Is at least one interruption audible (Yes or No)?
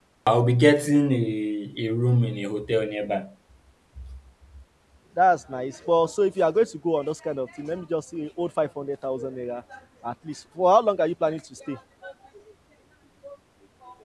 No